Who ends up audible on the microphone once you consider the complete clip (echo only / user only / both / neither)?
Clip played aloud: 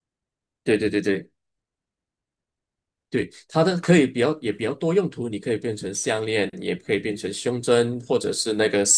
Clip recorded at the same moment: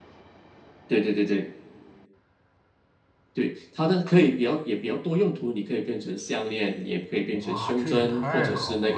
both